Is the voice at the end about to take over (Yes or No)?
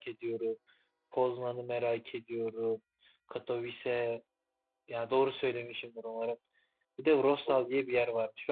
No